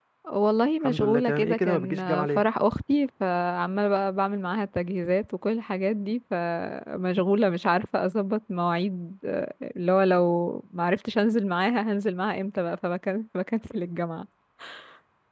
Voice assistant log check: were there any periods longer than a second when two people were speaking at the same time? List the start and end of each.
0.8-2.4

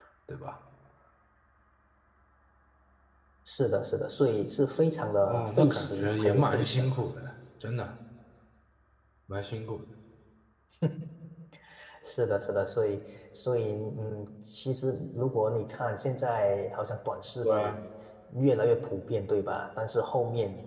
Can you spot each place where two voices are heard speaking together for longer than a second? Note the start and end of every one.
5.3-6.9

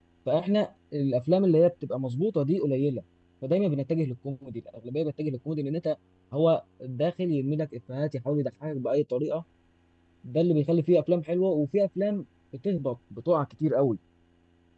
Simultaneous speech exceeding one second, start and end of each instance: none

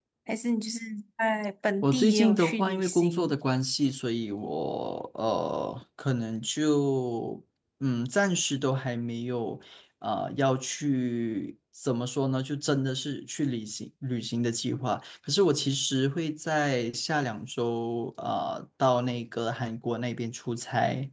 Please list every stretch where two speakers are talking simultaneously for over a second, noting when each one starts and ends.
1.8-3.3

